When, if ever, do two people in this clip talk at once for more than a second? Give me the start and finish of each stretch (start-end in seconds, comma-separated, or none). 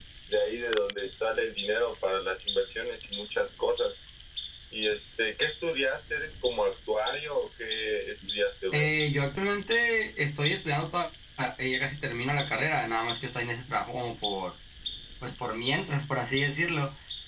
none